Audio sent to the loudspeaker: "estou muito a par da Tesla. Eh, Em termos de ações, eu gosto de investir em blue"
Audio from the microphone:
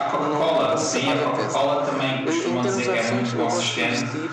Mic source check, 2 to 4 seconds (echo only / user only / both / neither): both